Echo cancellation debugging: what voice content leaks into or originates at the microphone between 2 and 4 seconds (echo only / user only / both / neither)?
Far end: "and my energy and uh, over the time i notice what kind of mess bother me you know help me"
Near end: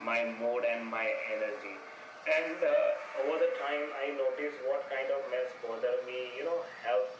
echo only